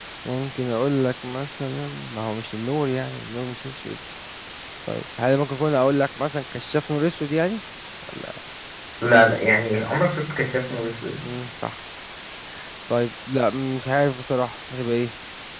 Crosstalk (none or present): none